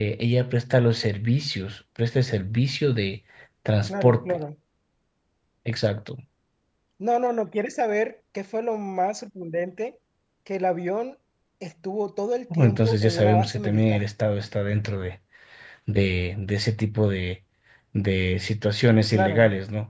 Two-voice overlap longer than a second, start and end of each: 12.5-14.0

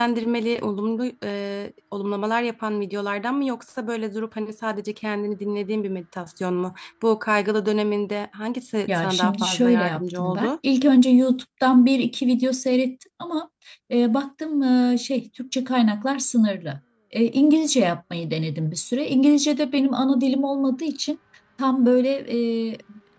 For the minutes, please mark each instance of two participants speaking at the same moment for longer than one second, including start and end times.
8.9-10.5

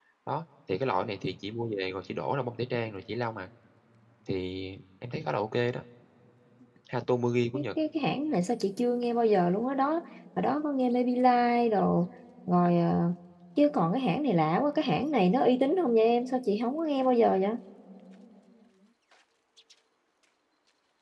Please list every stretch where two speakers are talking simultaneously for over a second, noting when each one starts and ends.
none

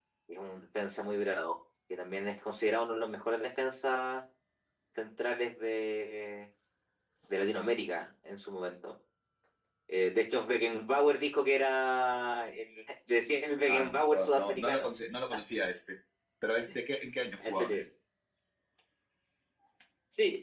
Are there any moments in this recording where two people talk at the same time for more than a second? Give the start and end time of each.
13.7-14.9

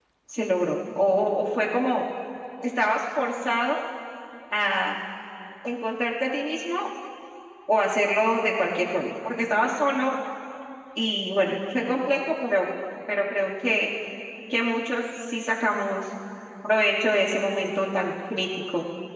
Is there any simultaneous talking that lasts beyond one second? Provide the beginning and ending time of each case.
none

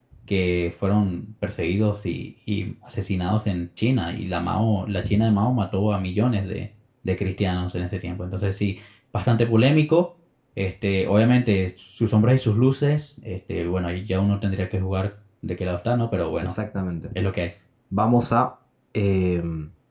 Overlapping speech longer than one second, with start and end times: none

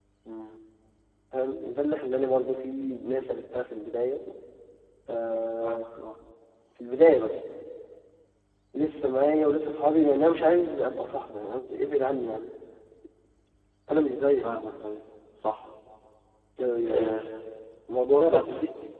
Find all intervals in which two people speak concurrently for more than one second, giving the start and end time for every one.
none

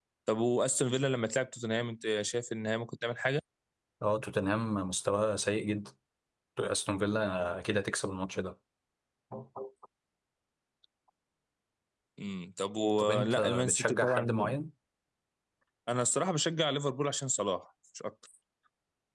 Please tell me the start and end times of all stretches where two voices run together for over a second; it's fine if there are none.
13.0-14.3

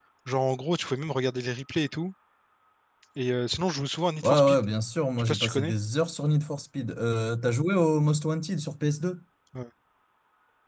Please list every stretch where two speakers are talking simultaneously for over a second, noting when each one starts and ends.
none

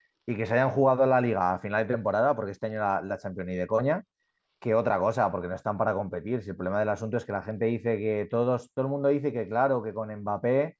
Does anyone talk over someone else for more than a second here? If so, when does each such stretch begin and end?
none

